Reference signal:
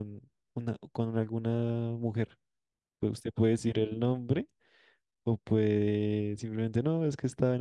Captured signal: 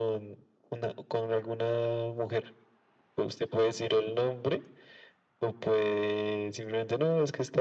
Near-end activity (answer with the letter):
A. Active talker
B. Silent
B